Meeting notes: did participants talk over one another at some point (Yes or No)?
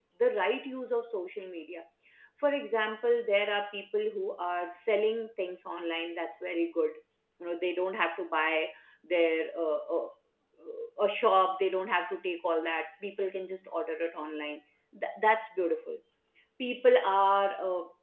No